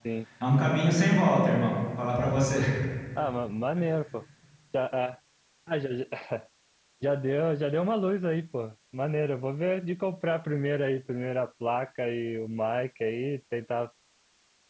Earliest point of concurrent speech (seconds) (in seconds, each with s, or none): none